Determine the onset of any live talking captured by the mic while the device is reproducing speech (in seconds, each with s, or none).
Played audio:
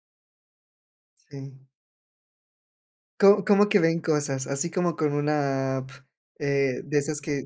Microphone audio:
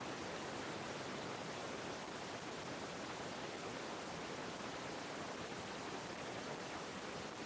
none